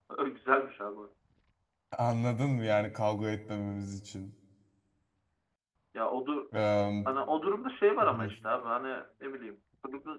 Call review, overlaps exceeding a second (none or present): none